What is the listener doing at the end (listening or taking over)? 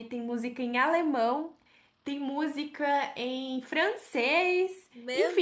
listening